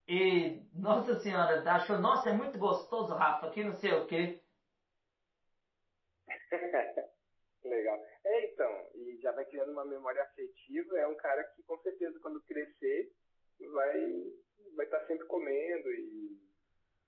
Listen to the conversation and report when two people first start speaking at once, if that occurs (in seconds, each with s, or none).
none